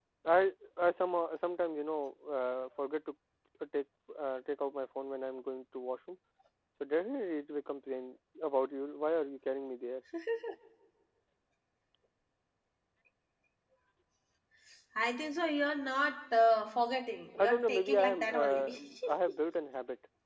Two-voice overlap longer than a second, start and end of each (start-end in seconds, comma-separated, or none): 17.4-18.7